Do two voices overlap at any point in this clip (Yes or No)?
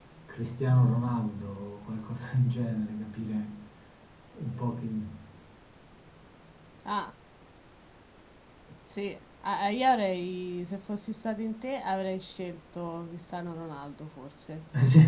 No